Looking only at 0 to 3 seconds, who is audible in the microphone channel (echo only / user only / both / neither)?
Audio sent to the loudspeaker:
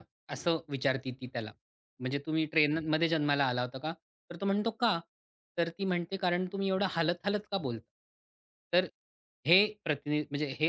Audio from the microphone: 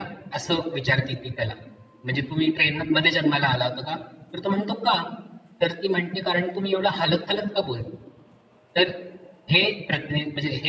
echo only